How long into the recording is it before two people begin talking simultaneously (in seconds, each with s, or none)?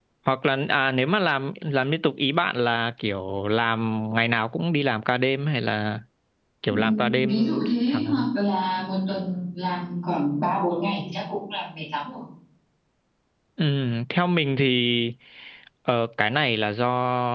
6.7 s